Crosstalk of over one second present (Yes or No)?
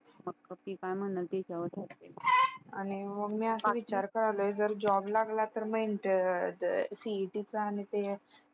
No